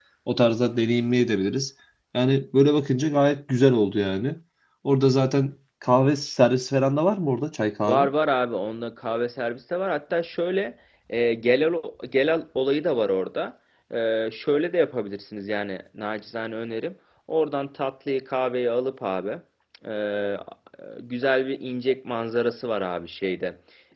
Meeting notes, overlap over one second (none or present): none